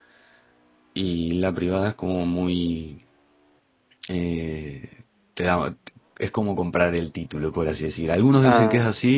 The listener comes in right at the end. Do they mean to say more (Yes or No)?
No